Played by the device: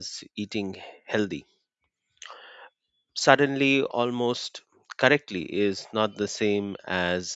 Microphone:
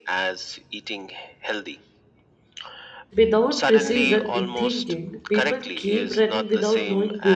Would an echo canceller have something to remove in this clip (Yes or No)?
Yes